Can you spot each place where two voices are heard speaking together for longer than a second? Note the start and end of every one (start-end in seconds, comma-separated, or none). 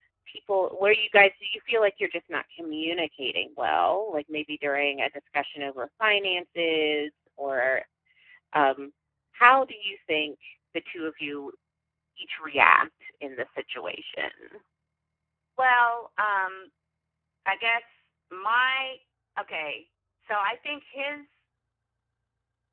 none